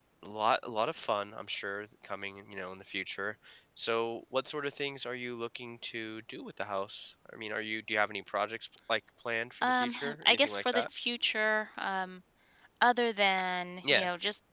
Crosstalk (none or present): present